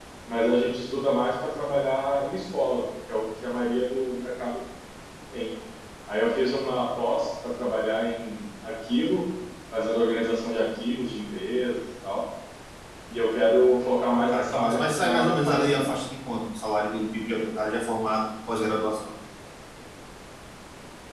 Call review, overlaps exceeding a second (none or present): present